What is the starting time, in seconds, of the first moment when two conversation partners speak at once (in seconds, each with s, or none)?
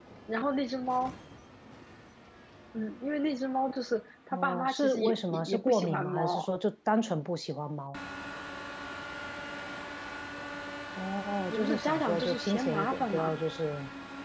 4.3 s